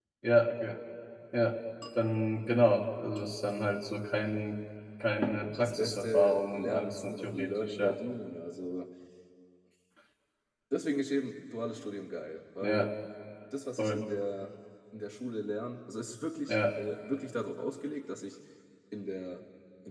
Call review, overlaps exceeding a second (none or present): present